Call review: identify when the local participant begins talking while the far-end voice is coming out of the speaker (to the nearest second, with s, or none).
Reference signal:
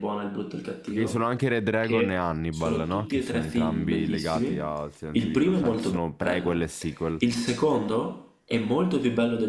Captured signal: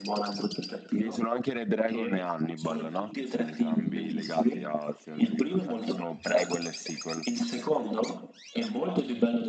none